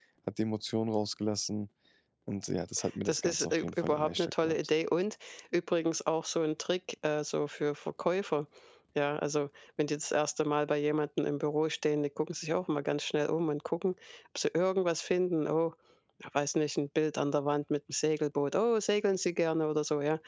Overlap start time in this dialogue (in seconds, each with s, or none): 3.0 s